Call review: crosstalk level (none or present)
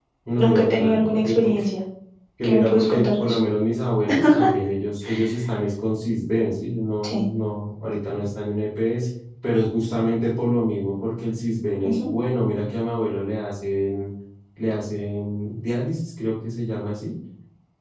present